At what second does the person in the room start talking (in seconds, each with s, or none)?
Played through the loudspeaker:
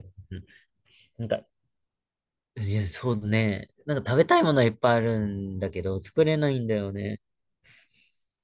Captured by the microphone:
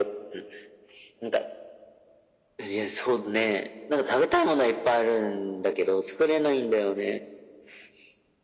none